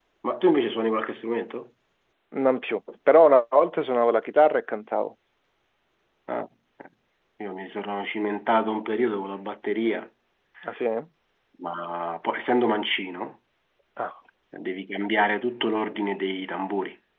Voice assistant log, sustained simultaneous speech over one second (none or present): none